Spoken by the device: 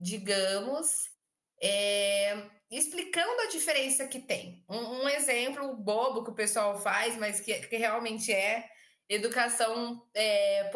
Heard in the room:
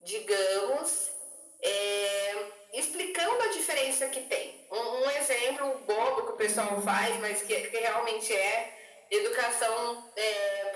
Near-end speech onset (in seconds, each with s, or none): 6.4 s